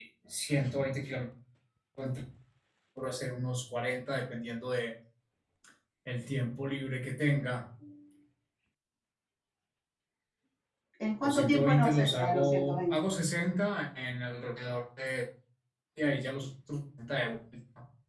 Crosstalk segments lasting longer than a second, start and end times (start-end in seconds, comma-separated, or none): 11.2-13.0